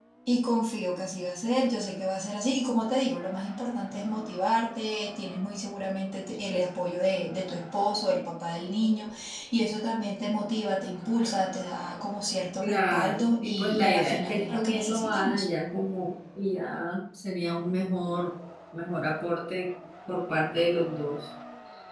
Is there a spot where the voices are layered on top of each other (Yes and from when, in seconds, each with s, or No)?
Yes, from 12.6 s